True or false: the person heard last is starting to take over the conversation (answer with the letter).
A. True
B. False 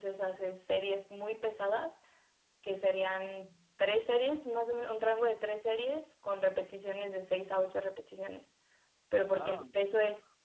B